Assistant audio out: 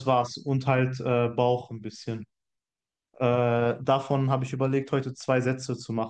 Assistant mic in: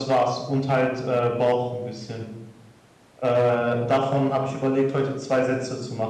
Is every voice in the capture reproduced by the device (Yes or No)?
Yes